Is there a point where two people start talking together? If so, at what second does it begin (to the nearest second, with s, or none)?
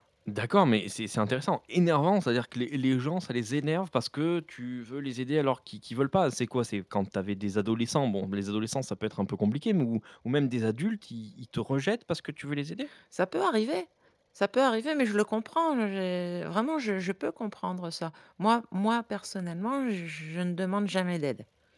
none